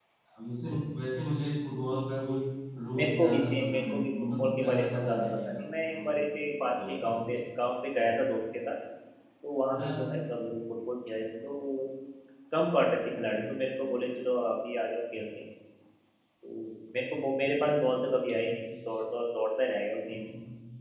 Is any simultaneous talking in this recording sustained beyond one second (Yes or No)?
Yes